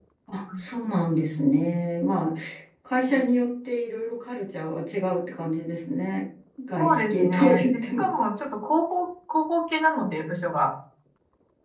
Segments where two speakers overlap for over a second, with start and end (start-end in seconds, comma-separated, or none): 6.8-8.0